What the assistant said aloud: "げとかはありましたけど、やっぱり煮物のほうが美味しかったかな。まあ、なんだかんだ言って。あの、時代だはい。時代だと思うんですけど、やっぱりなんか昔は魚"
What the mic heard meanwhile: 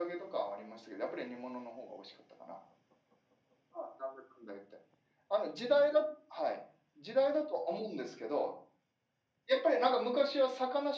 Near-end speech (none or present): none